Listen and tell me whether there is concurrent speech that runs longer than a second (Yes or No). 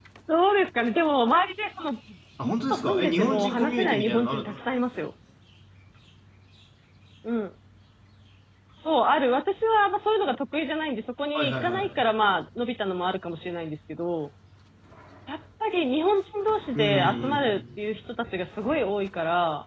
Yes